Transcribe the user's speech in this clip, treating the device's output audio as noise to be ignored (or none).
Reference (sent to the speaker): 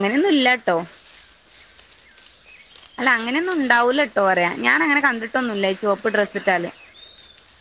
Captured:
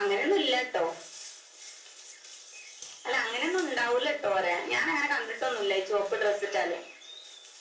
none